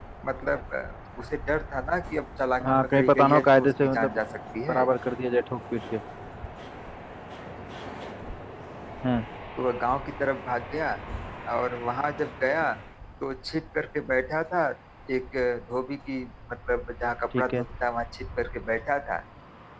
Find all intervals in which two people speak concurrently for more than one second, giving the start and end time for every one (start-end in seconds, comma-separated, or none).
2.6-4.2